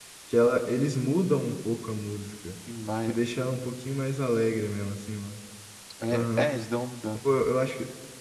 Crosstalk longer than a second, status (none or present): none